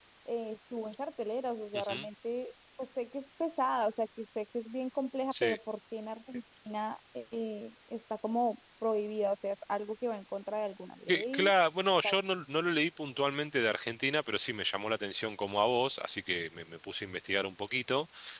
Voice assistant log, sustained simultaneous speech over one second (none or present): none